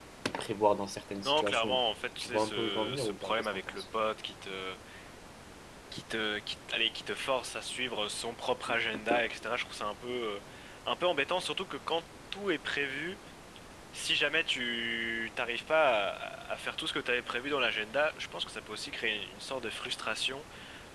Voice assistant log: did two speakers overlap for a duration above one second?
Yes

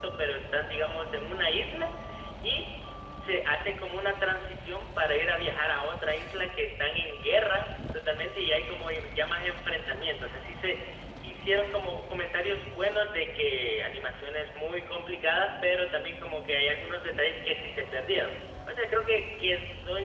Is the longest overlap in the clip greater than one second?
No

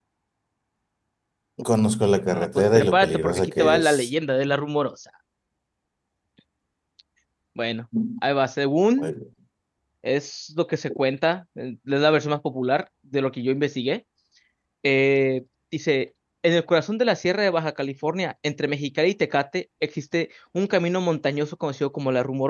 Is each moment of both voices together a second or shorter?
No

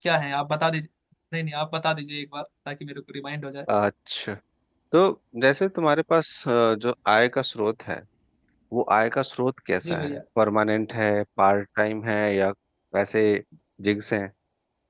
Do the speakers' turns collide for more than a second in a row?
No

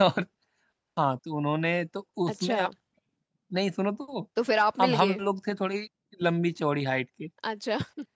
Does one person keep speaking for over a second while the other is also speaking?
No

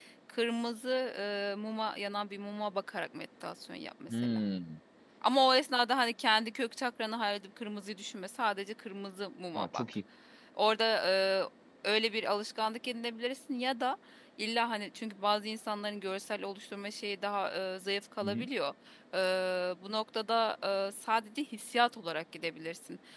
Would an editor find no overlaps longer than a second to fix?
Yes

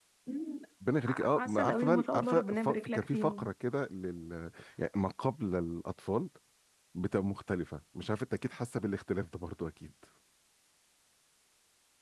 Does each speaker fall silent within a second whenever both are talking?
No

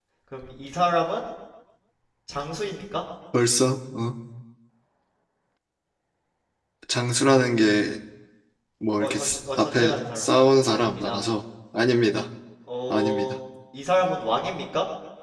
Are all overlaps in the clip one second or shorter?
No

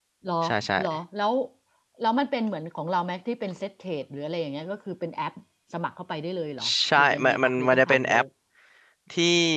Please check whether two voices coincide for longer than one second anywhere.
Yes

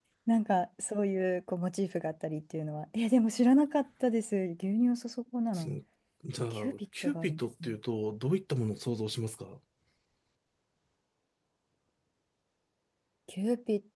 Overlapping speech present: Yes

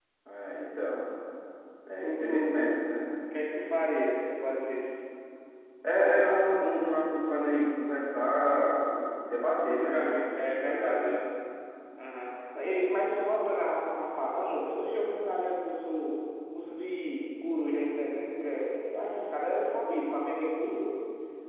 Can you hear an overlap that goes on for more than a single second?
Yes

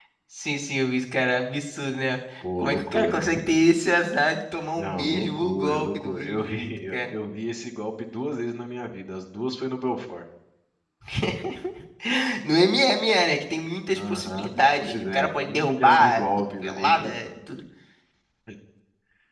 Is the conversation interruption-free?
No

